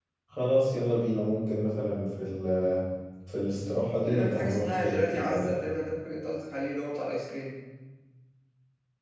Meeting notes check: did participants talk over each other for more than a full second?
Yes, from 4.0 s

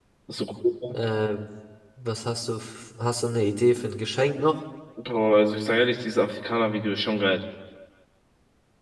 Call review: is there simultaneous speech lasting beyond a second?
No

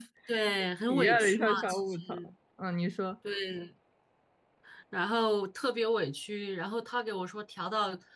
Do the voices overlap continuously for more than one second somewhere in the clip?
Yes, from 0.9 s

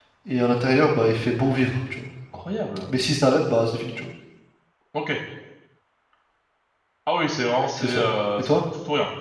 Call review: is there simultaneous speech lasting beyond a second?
No

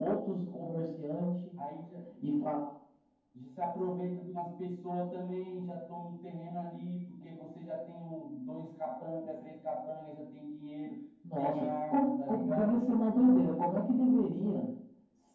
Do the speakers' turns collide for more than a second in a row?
Yes, from 11.4 s

